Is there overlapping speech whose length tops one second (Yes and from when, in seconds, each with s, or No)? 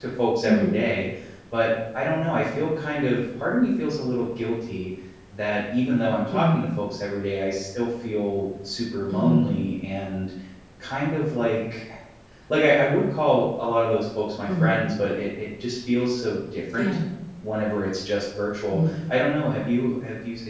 No